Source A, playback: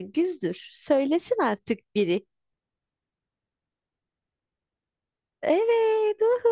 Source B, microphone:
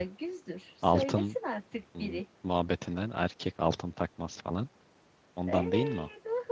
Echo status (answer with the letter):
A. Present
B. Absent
A